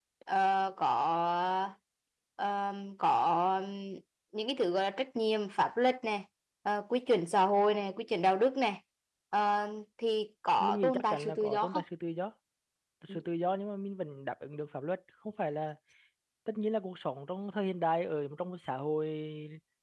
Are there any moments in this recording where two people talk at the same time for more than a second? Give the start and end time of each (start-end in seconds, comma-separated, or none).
10.6-11.8